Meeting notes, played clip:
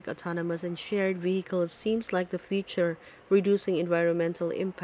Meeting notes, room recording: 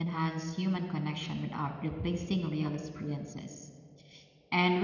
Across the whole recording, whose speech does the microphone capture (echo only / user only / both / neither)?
user only